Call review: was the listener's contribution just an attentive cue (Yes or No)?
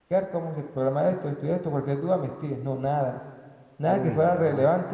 Yes